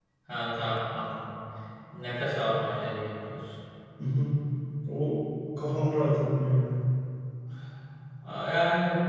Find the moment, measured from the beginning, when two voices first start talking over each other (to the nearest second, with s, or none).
none